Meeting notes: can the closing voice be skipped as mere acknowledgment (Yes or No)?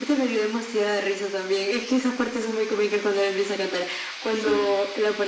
Yes